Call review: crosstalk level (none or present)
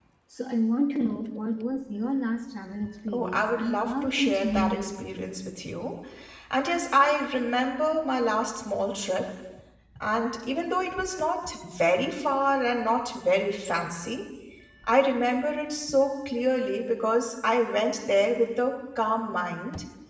present